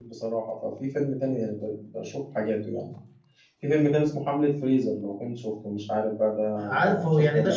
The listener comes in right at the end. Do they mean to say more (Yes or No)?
Yes